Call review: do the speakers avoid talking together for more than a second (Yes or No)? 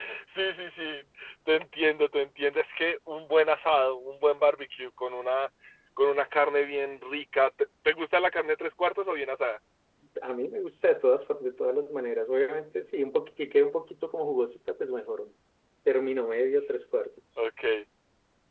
Yes